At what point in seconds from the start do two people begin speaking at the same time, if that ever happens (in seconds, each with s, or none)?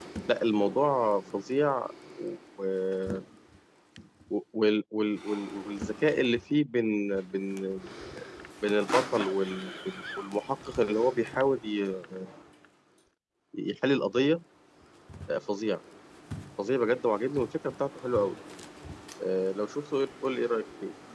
none